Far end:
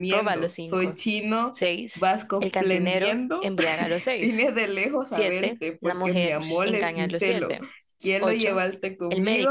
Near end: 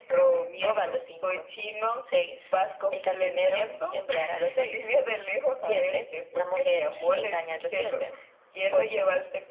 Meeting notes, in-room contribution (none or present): none